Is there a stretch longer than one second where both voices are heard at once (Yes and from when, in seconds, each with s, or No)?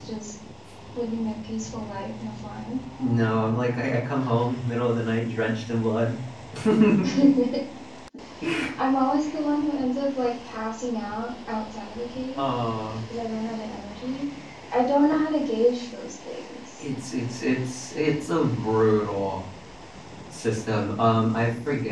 No